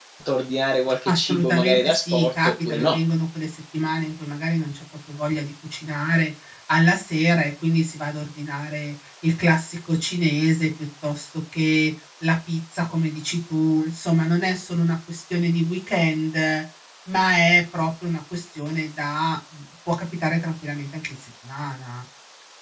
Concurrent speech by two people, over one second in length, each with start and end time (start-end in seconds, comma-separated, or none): 1.1-3.0